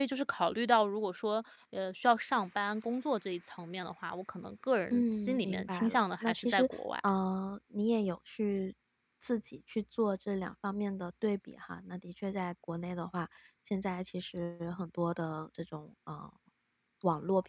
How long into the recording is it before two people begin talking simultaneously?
4.9 s

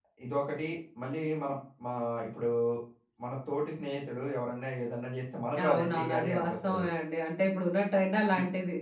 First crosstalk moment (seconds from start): 5.5 s

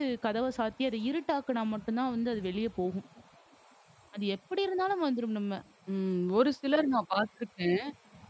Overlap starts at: none

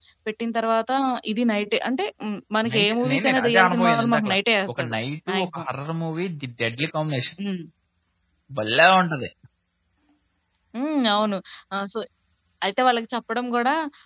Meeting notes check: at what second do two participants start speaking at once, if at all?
2.7 s

